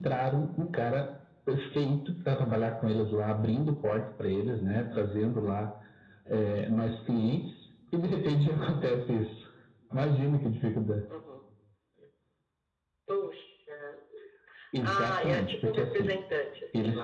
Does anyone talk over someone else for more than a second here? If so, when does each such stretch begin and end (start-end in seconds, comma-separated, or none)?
14.8-16.1